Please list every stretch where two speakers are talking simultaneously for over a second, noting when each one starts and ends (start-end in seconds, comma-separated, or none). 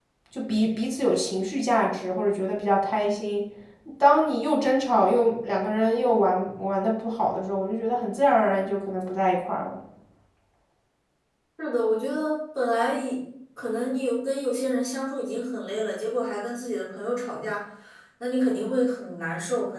none